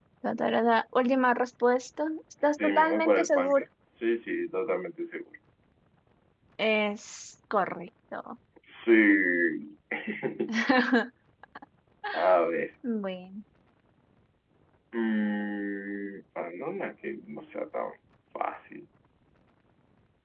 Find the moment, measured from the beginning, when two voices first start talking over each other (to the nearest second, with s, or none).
2 s